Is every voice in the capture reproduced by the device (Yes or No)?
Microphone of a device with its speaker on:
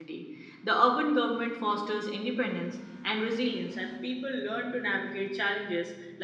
No